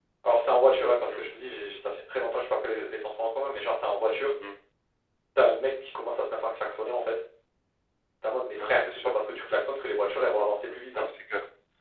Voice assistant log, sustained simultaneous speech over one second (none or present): none